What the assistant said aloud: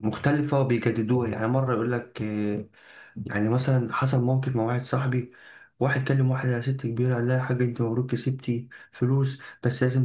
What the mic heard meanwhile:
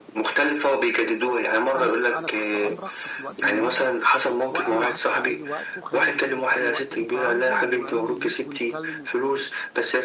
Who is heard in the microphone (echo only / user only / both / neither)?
both